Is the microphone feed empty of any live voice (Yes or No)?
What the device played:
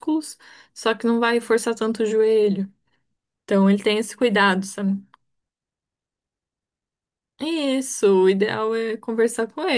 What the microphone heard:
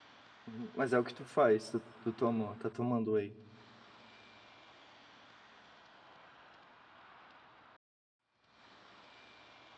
No